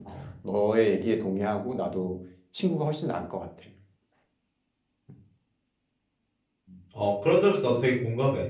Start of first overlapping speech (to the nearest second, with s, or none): none